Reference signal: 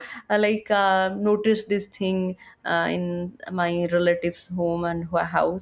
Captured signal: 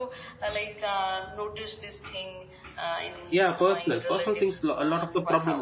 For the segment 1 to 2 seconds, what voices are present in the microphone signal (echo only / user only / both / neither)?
echo only